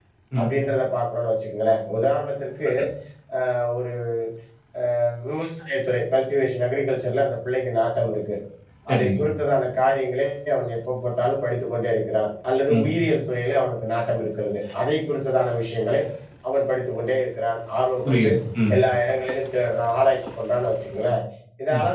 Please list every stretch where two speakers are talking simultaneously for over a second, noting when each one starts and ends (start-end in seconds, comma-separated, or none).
none